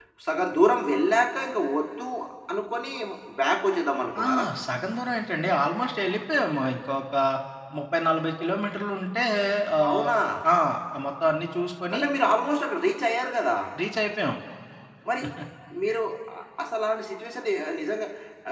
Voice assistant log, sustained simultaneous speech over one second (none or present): none